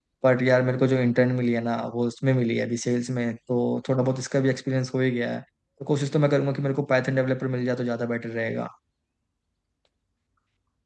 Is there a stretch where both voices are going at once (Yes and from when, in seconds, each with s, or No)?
No